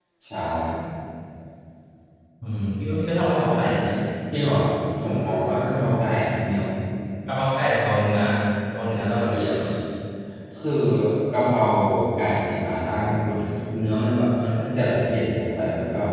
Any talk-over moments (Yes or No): No